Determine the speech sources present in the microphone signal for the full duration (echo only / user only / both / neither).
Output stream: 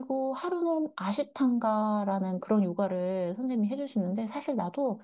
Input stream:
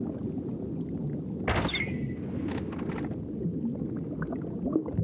neither